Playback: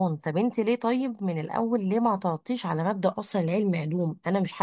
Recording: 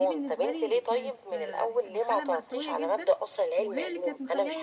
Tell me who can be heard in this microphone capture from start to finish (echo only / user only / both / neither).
both